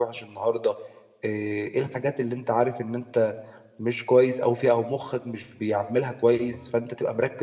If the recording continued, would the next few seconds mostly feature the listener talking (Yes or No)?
No